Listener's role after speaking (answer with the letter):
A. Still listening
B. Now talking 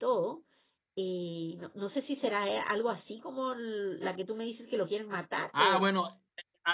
B